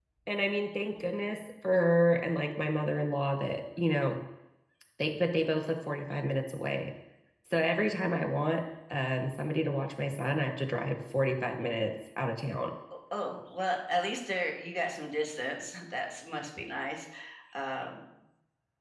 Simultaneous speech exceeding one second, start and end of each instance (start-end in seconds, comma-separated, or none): none